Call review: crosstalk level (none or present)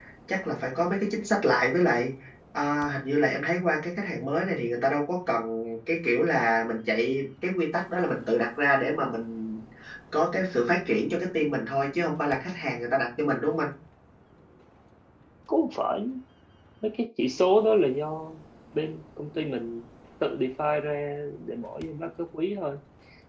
none